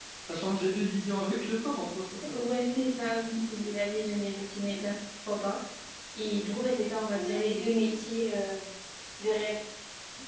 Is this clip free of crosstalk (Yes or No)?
Yes